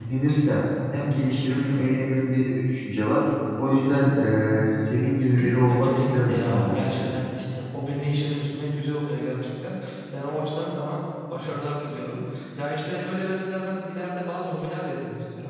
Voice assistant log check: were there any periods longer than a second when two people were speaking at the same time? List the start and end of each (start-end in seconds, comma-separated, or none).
5.6-7.0